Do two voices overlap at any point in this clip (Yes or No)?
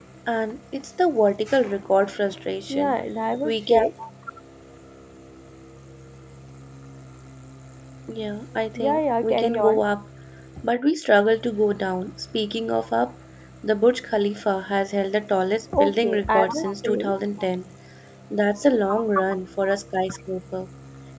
Yes